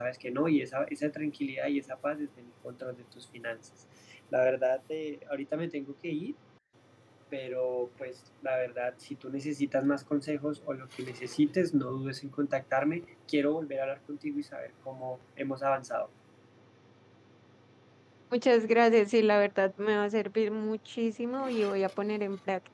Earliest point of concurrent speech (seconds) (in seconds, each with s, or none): none